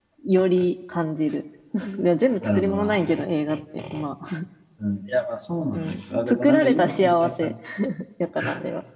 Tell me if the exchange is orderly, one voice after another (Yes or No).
No